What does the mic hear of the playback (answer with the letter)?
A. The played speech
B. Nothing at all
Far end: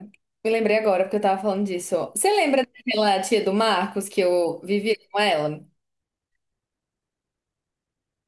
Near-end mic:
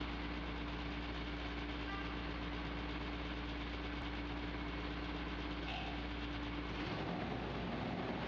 B